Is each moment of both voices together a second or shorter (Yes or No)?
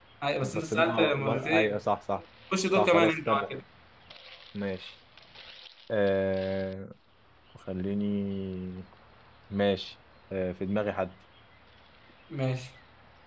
No